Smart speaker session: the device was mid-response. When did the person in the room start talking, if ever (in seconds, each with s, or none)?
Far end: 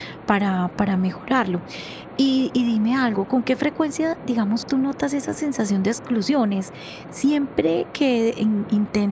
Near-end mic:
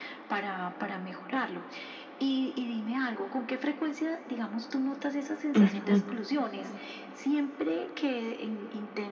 5.6 s